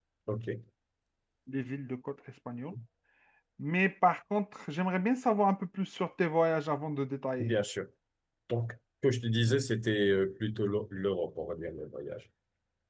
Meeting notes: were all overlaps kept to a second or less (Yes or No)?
Yes